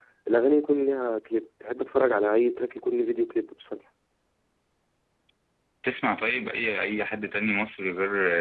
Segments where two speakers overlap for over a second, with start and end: none

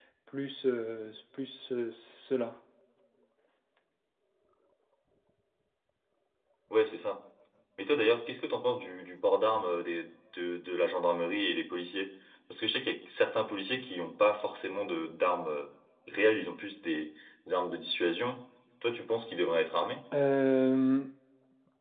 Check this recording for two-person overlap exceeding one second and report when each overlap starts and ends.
none

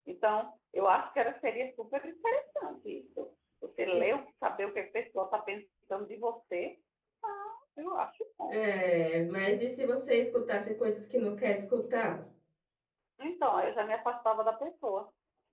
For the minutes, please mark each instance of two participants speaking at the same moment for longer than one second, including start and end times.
none

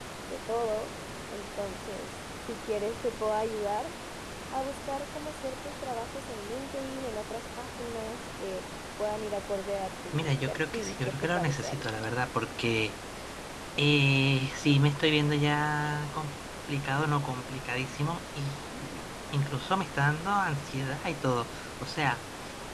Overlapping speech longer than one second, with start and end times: 10.1-11.8

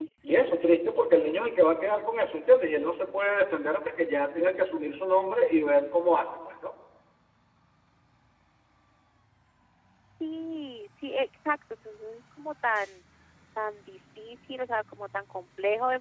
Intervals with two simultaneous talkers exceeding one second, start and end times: none

